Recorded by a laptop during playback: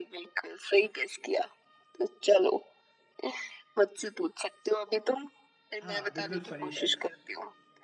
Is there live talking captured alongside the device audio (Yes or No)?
Yes